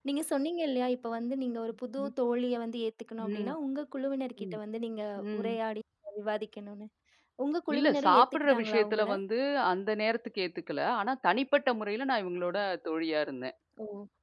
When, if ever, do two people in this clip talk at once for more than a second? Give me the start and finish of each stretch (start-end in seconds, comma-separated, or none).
7.7-9.1